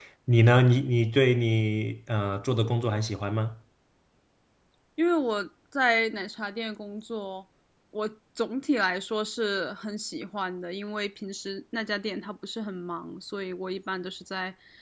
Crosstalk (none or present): none